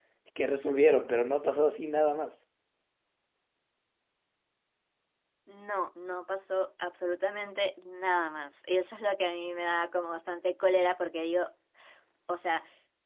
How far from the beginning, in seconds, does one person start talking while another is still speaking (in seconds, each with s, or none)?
none